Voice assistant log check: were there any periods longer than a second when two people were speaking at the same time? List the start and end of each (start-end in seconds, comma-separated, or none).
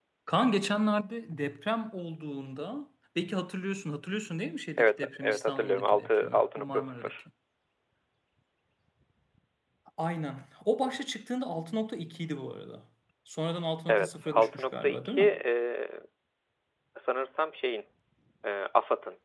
4.8-7.1, 13.9-15.3